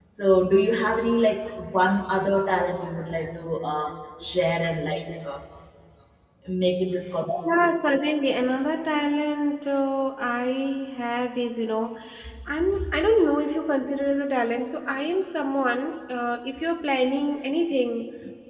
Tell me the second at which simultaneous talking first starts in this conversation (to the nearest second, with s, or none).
none